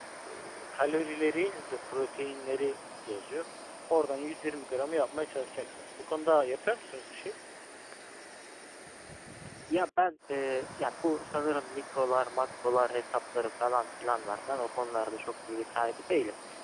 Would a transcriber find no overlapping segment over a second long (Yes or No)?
Yes